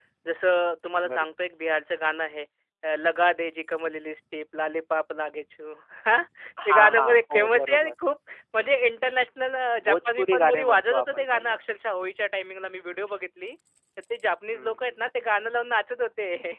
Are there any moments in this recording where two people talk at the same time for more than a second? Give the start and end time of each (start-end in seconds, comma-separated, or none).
6.7-7.9, 9.9-11.6